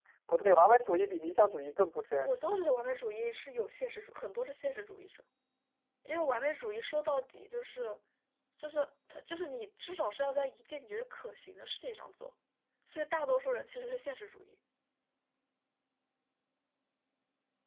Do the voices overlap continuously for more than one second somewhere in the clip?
No

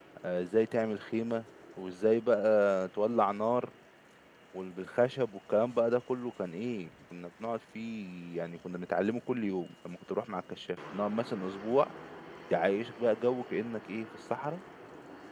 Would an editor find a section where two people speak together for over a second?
No

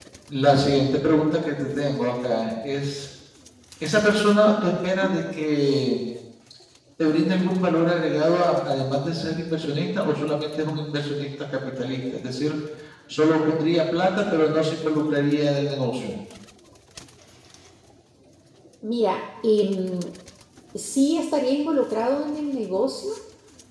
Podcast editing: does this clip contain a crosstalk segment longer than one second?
No

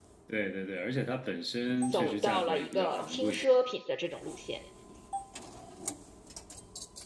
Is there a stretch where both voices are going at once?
Yes, from 1.9 s

